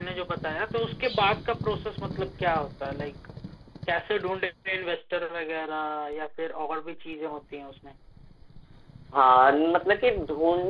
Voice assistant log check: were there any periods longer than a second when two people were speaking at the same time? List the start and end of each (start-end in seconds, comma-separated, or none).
none